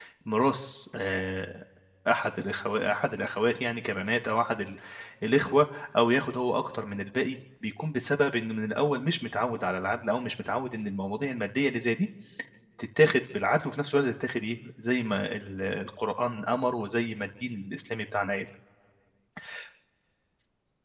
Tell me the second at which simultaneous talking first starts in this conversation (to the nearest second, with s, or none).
none